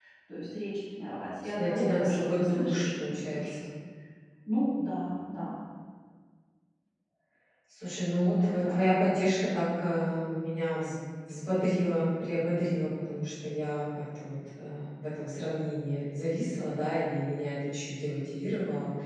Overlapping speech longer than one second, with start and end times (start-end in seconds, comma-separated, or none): 1.6-3.5